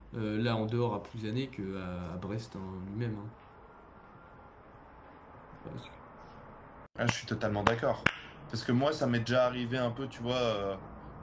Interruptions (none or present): none